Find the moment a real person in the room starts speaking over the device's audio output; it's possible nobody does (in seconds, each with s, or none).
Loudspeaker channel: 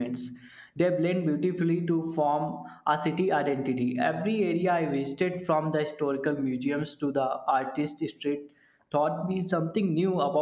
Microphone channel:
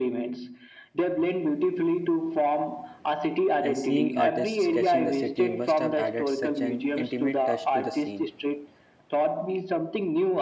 3.6 s